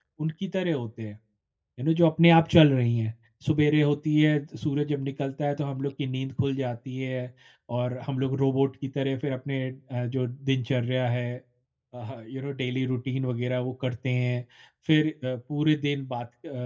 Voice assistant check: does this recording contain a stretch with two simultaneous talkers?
No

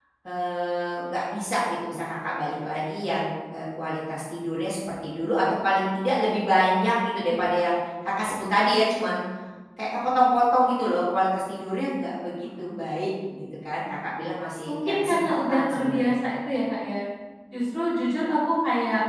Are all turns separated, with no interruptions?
No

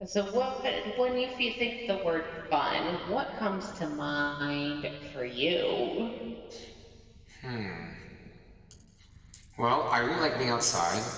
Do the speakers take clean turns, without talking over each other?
Yes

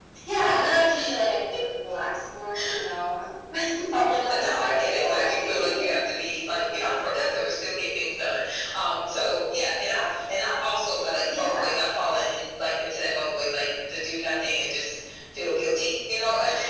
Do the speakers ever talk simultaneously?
Yes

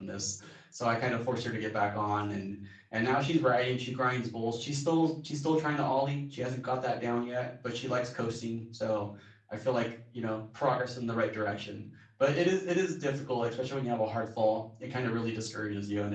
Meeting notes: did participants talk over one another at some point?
No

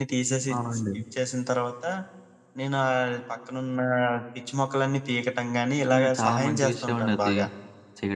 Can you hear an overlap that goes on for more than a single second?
Yes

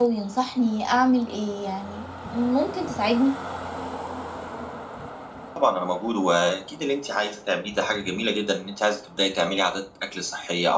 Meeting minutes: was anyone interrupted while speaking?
No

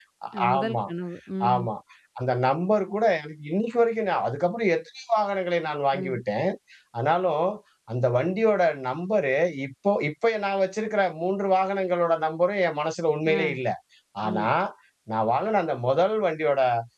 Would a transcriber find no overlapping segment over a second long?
Yes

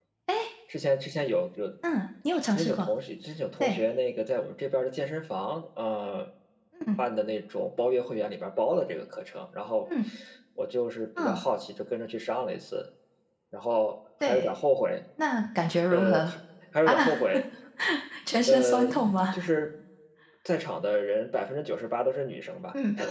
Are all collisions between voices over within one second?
Yes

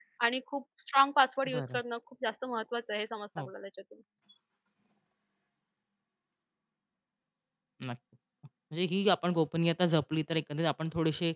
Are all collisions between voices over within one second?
Yes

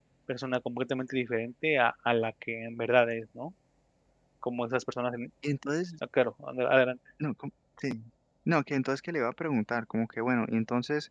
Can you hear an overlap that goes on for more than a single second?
No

